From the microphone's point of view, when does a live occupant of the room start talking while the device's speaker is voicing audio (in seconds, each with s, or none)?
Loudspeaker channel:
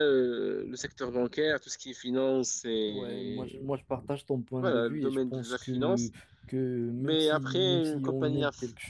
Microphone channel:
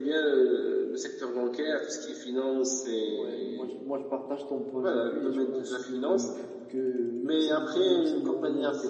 none